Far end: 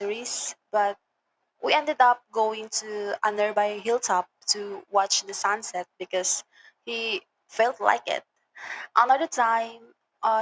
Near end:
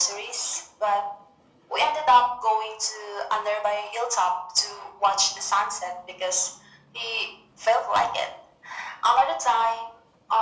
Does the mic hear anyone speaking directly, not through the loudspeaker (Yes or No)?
No